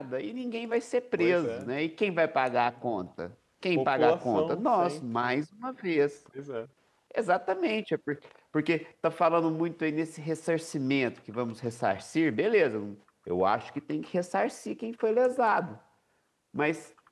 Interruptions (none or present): present